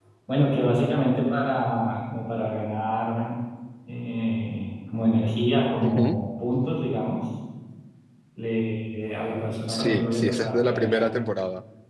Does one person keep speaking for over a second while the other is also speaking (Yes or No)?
Yes